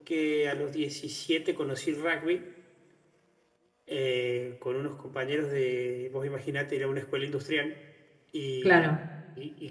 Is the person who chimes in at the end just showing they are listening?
Yes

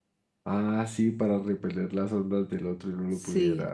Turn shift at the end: Yes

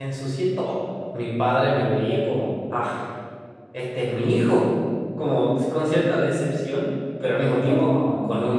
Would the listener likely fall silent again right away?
Yes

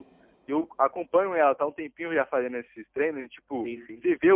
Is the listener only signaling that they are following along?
Yes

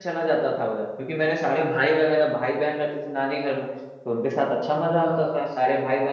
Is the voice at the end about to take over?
No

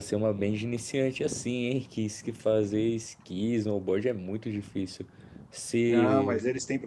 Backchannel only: No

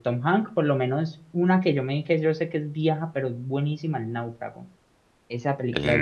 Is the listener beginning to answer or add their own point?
No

